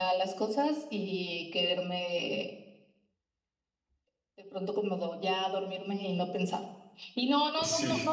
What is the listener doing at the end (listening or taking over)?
listening